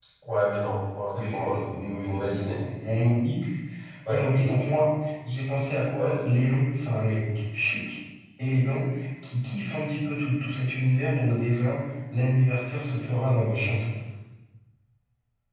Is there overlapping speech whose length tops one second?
No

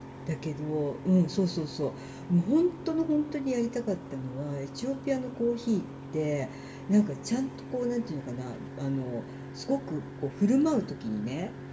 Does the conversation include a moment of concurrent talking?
No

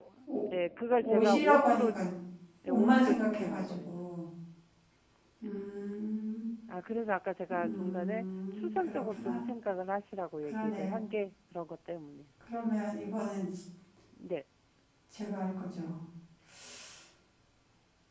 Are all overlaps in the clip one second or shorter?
No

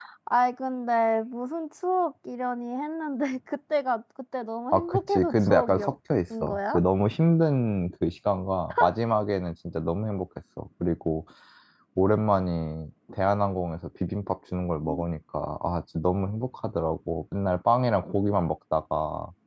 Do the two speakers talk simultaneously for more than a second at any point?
Yes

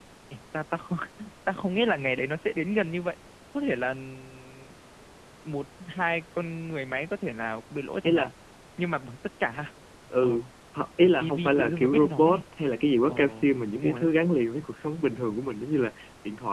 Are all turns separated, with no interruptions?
No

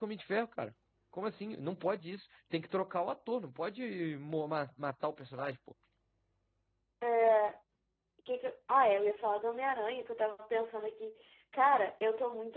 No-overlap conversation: Yes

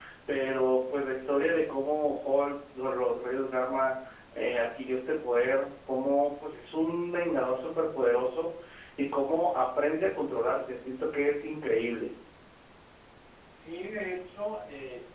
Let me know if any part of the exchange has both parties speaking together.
No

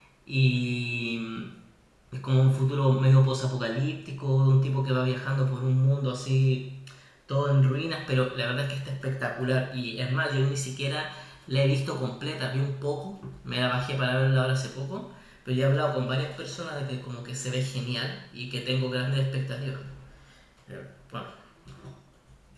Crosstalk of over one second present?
No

